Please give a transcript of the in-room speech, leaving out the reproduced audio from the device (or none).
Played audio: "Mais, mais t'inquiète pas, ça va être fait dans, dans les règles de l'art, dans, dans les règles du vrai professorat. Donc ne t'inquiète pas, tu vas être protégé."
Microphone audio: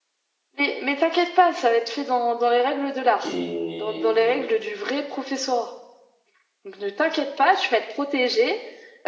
Et,